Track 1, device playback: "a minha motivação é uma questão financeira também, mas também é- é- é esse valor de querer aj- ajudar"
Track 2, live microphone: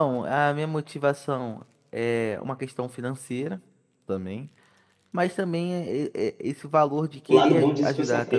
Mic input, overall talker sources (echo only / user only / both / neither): both